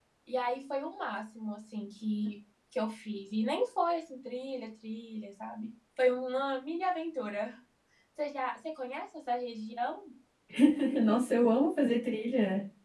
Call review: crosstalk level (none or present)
none